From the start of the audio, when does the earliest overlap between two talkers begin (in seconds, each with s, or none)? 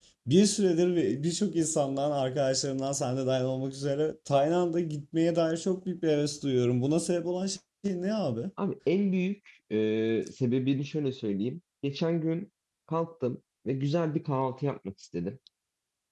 none